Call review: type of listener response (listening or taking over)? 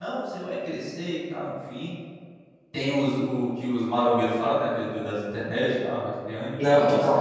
taking over